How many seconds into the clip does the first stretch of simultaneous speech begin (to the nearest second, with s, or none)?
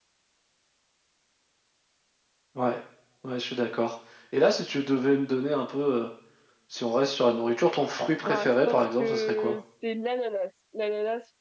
8 s